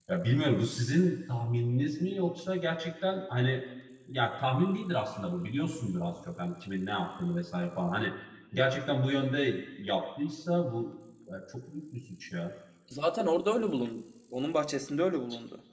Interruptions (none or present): none